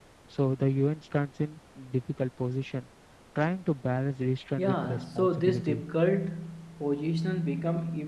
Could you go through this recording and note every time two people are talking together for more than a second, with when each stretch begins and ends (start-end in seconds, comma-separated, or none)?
4.6-5.8